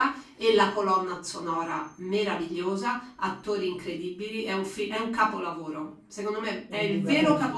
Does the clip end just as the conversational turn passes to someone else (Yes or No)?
No